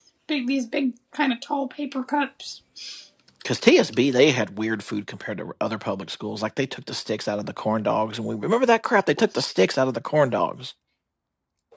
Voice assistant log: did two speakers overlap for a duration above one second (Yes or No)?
No